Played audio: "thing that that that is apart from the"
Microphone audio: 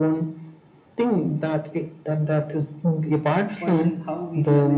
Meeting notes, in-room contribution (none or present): present